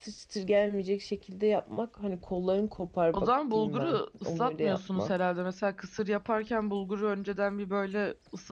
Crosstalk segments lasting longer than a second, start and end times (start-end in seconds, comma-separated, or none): 3.1-5.1